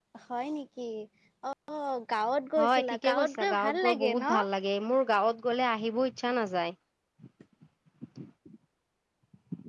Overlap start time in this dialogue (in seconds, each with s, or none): 2.6 s